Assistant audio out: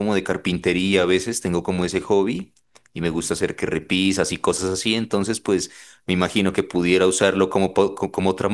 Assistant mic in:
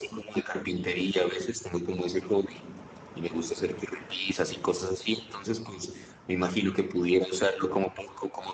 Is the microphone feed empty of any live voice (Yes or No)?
Yes